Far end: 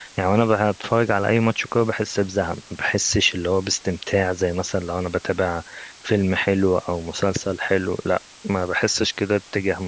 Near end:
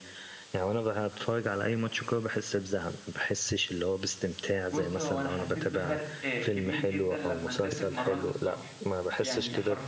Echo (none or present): present